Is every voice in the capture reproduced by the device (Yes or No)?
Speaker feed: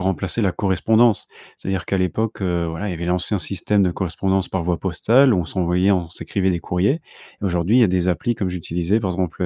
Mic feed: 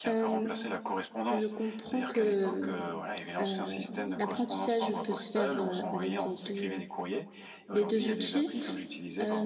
No